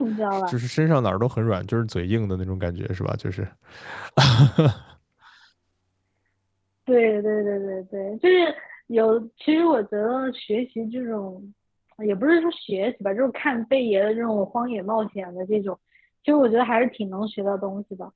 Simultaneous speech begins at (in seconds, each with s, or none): none